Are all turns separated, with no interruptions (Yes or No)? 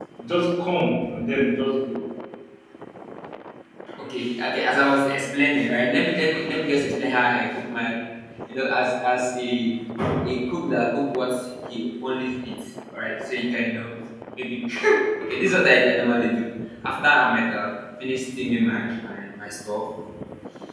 Yes